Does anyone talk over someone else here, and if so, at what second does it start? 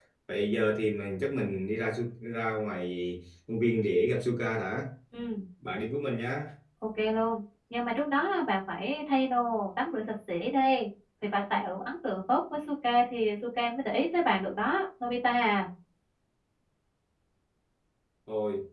none

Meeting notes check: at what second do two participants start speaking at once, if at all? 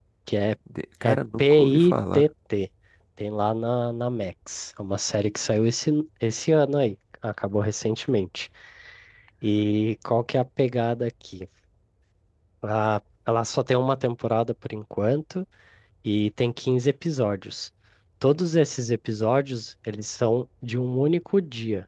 1.0 s

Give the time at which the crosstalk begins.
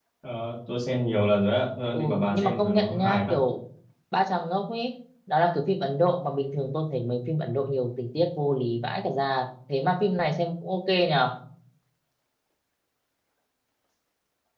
1.9 s

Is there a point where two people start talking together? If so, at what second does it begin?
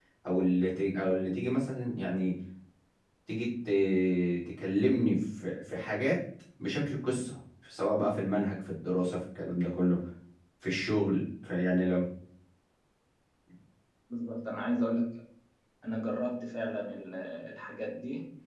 none

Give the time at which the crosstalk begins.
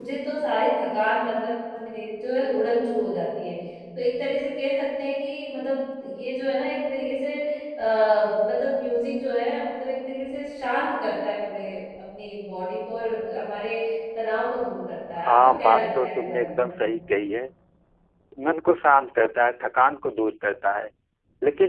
15.3 s

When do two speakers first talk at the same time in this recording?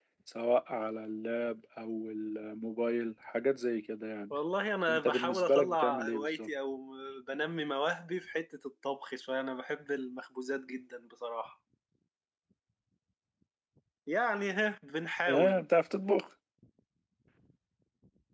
4.9 s

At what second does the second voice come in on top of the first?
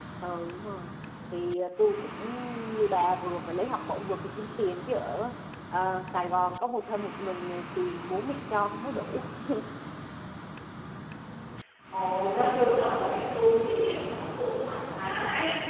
none

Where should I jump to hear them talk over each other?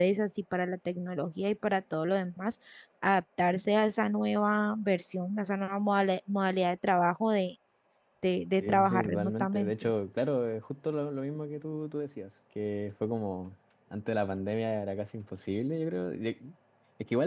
8.6 s

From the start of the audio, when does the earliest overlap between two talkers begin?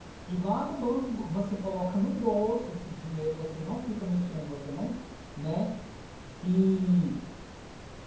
none

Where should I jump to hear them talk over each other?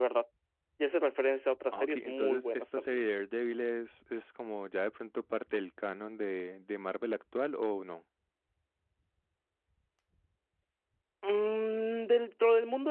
1.7 s

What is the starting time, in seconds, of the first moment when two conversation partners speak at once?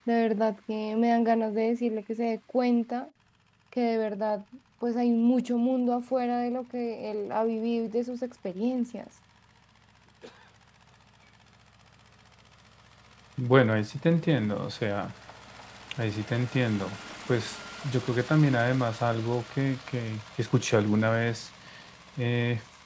none

